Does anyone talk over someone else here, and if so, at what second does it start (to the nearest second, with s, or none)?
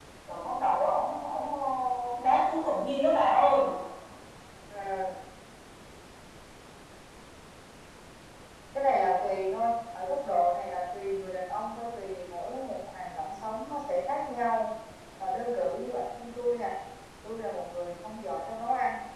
none